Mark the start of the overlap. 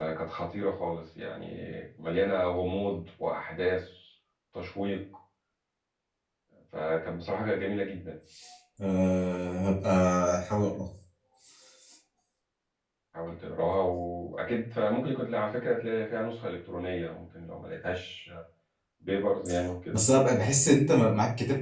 none

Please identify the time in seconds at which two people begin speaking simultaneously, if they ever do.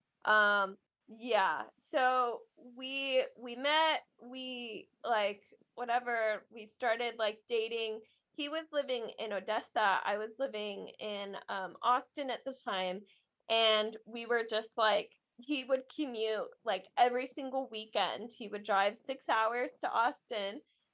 none

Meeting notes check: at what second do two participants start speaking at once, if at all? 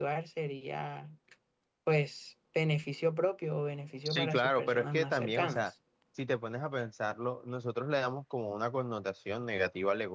4.0 s

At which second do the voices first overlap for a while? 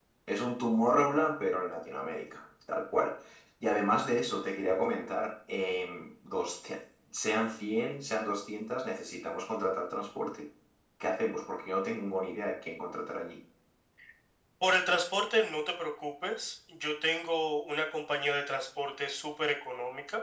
none

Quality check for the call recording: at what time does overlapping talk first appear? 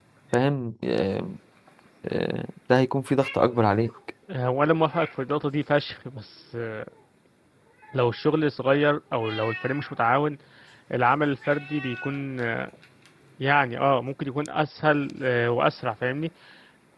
none

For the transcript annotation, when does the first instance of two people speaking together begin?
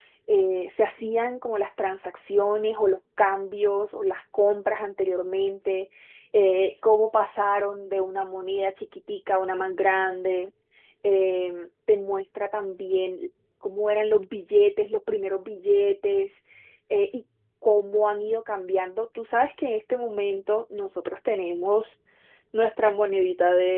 none

